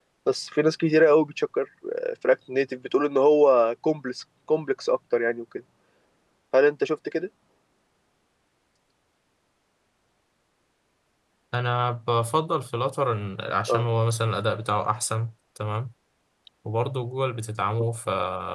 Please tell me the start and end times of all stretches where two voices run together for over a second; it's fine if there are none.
none

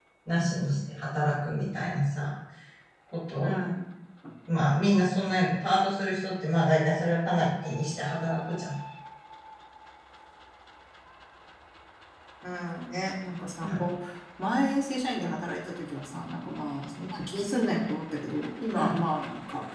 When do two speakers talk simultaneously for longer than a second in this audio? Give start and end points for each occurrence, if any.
none

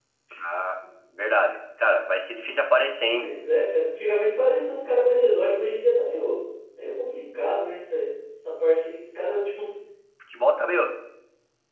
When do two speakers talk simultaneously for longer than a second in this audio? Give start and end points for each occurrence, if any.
none

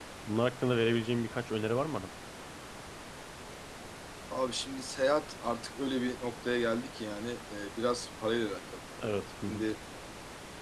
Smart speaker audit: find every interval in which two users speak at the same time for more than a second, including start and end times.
none

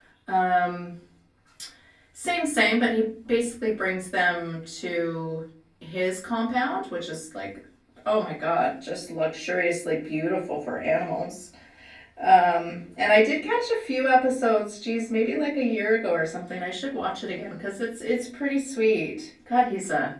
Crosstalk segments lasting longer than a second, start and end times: none

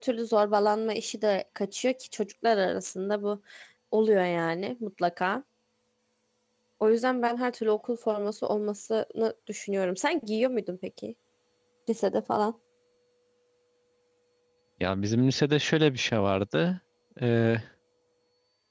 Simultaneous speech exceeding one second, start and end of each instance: none

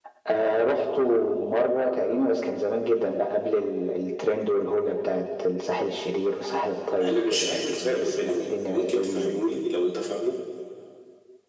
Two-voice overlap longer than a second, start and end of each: 7.0-9.4

